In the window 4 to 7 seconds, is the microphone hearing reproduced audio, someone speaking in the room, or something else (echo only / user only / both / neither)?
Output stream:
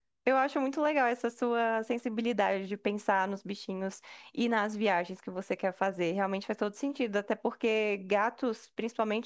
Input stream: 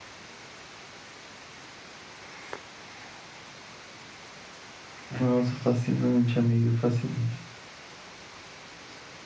user only